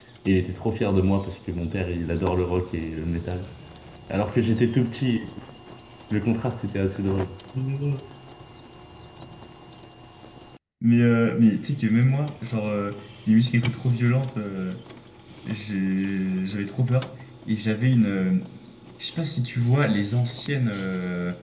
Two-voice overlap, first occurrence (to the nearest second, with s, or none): none